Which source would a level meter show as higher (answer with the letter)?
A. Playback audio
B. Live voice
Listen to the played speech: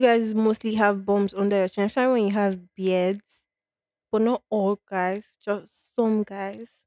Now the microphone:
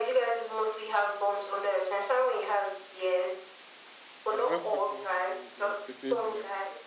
A